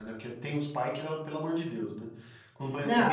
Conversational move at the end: listening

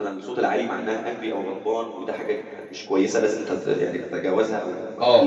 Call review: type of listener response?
taking over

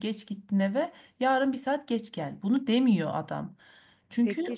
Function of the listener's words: taking over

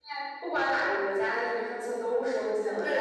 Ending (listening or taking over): taking over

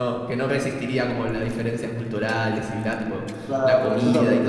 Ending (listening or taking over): taking over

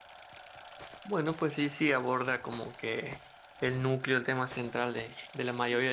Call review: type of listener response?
listening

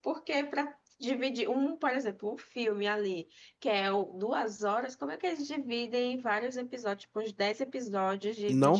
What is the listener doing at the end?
taking over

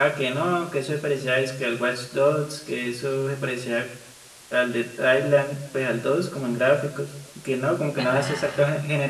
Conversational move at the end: listening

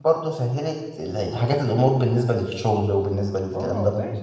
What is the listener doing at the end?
taking over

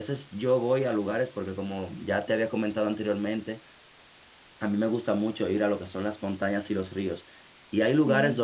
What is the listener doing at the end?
listening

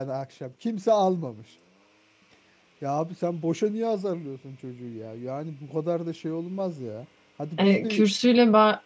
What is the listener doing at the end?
taking over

